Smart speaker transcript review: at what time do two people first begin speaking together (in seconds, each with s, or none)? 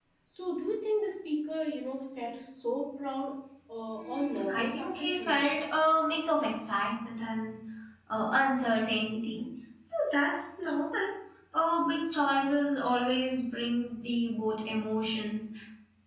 3.9 s